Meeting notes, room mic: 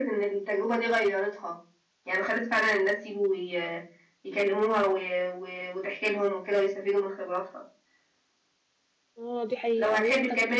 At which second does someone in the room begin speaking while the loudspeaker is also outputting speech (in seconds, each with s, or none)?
9.2 s